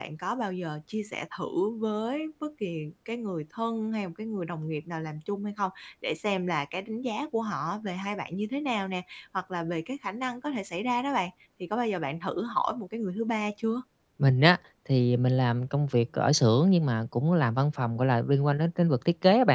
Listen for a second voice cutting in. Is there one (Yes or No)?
No